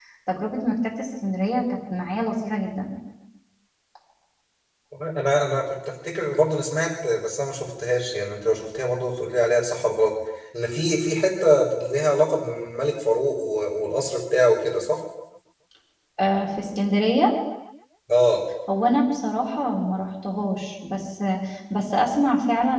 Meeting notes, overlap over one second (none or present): none